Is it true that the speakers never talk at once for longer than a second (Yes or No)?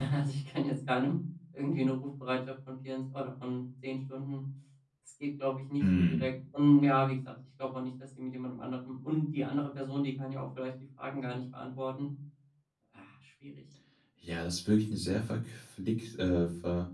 Yes